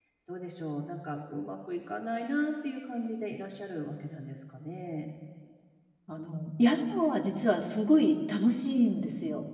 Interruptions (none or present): none